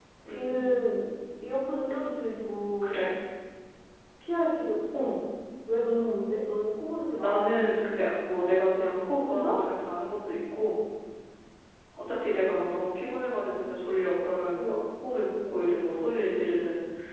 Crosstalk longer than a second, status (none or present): none